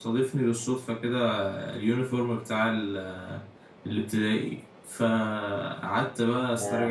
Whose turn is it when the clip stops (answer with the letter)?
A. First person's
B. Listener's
A